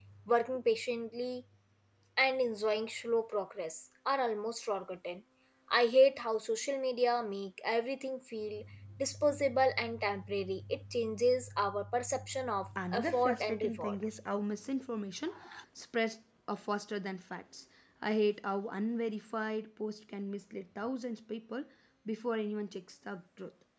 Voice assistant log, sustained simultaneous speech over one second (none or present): present